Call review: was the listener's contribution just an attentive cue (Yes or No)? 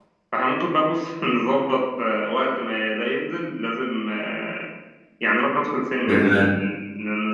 Yes